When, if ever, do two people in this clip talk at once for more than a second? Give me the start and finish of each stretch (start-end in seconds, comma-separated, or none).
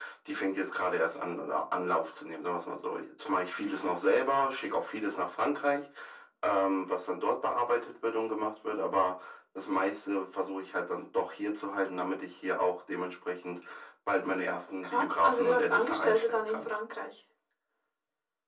14.8-16.7